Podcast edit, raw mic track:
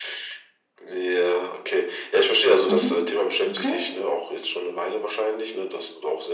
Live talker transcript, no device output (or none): Mhm. Okay.